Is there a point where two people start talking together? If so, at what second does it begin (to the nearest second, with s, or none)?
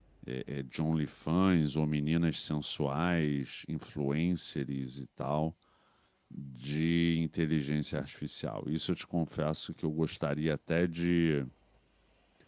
none